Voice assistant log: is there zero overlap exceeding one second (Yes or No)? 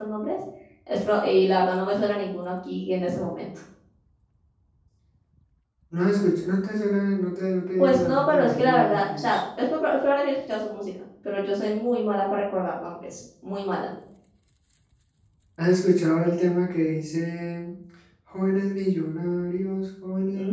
No